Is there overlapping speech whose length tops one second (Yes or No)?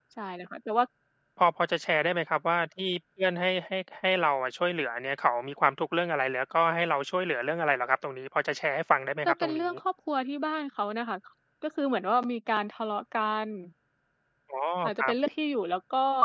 No